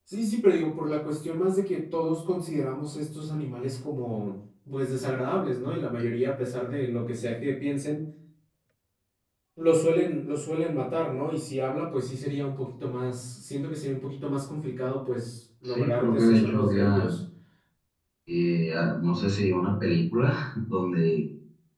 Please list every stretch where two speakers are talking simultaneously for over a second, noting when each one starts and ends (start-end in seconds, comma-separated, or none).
15.6-17.1